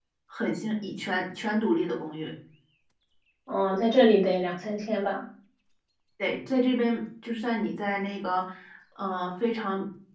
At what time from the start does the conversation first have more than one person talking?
none

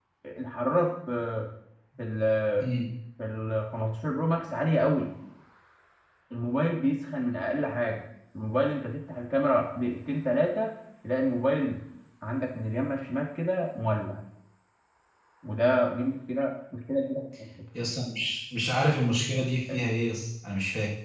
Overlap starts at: none

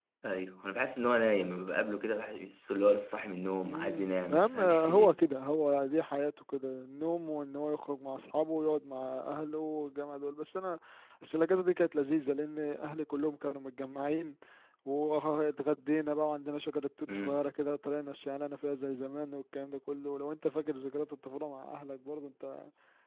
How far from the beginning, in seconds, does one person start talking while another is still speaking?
4 s

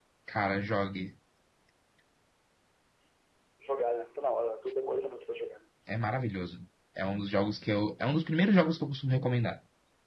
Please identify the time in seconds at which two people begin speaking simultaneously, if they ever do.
none

